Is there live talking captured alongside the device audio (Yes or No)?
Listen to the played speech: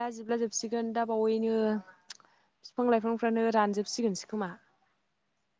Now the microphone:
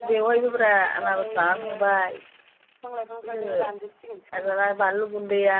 Yes